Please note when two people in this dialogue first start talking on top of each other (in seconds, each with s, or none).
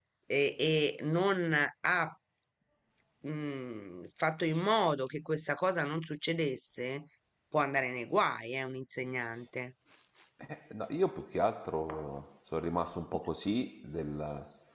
none